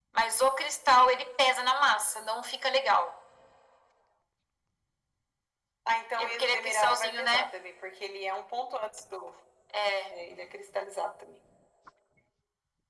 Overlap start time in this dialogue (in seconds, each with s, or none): 6.2 s